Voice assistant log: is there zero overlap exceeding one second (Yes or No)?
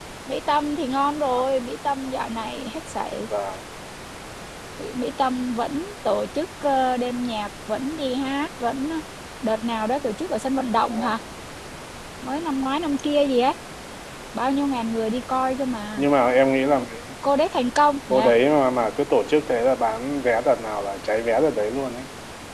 Yes